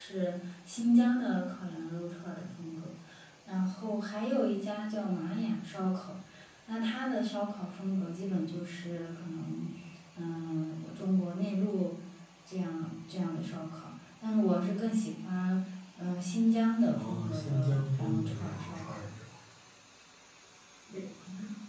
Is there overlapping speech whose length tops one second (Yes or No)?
Yes